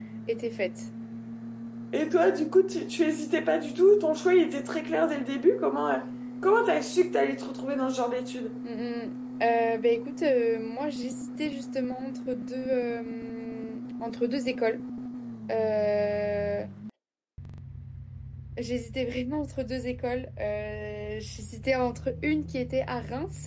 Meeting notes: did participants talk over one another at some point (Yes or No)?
No